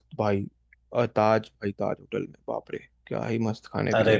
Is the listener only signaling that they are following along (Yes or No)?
No